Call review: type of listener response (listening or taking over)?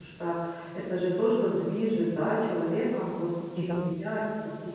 listening